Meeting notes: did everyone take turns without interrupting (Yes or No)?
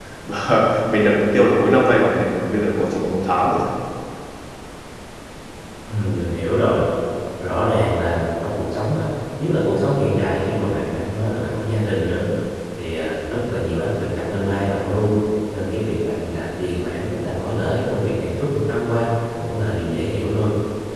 Yes